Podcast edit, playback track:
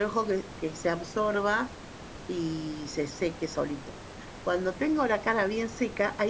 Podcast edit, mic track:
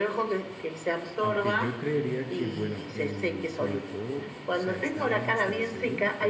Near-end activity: present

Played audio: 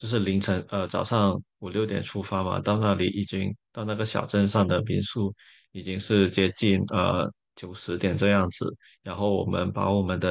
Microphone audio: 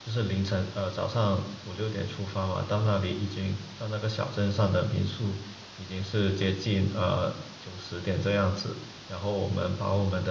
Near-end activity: none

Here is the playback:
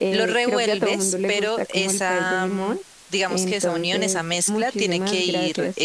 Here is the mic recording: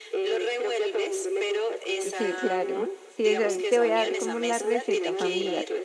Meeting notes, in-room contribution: present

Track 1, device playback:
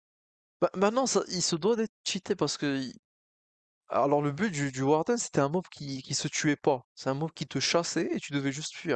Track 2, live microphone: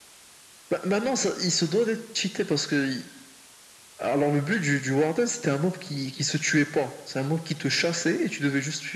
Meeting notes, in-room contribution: none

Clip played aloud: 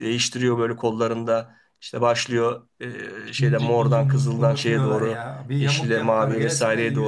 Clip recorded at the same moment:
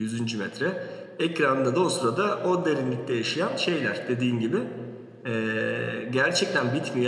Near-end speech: present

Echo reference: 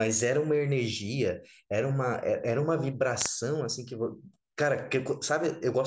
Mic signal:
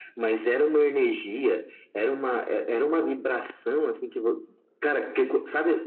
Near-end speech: none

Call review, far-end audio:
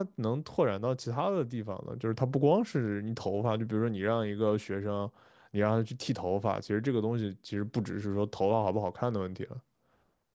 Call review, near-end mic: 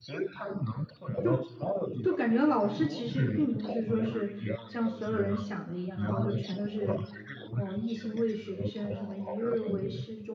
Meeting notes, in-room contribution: present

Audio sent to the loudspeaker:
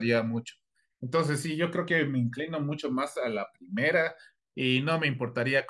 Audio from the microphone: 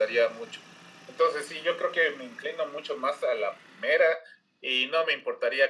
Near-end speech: none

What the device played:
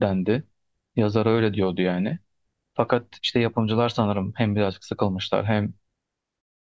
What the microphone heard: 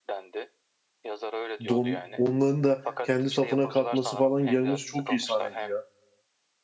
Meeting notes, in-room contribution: present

